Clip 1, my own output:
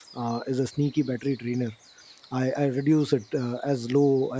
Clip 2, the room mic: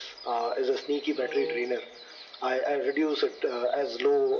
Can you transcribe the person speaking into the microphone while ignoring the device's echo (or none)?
so